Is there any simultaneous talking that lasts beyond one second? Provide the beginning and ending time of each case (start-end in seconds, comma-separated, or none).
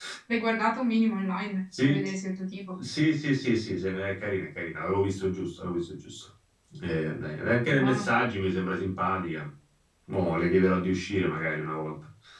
none